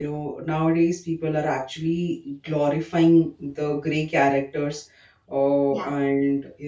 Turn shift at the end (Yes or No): No